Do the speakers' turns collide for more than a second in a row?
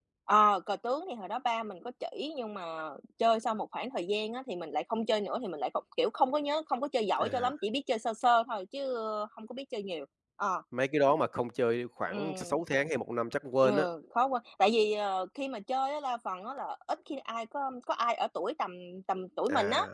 No

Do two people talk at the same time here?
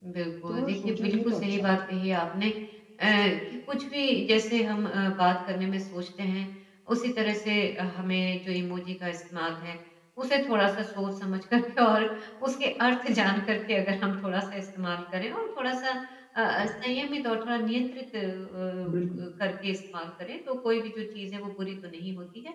Yes, from 0.5 s

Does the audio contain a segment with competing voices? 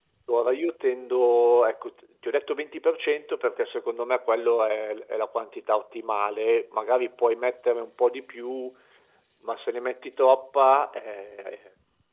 No

